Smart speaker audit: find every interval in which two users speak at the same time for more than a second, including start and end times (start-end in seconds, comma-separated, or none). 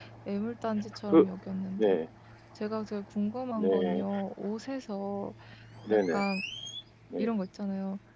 none